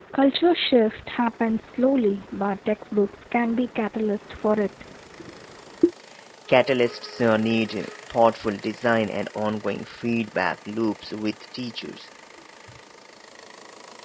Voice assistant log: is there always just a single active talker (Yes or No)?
Yes